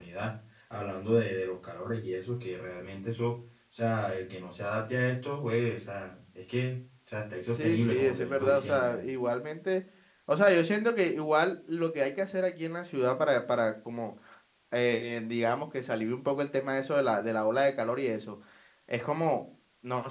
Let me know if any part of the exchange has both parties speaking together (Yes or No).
Yes